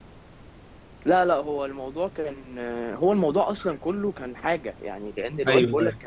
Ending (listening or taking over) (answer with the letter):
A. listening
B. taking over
A